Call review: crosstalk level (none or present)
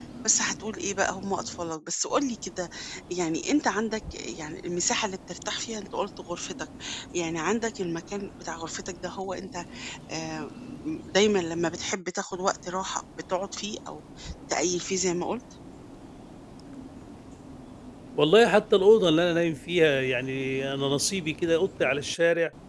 none